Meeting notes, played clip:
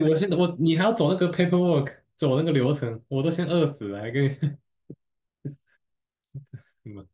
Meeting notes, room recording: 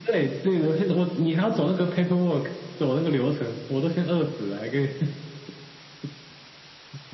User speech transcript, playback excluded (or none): none